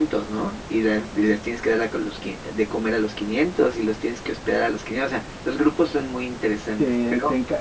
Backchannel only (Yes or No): No